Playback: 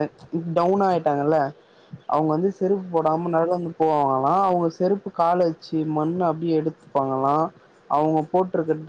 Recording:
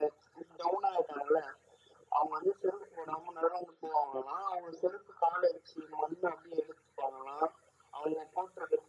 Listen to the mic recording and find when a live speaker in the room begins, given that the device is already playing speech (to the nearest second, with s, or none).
none